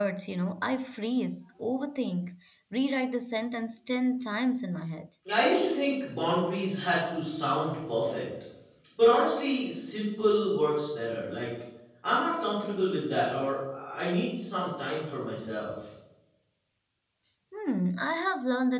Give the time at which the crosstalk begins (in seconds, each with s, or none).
none